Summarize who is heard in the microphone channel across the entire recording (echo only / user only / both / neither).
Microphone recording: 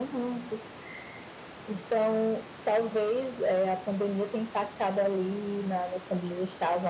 echo only